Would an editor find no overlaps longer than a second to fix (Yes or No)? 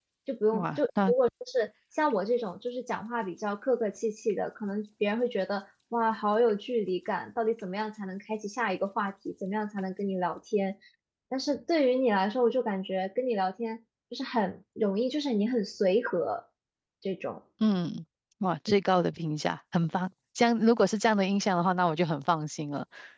Yes